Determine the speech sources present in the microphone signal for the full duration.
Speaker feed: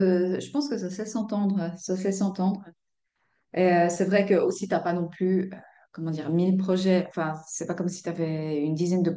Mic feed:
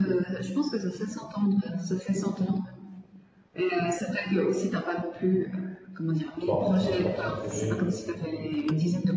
both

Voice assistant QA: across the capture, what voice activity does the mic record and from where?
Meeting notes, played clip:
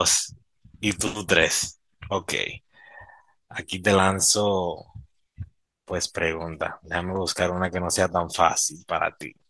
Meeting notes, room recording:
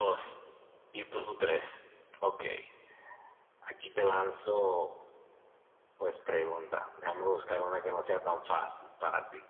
echo only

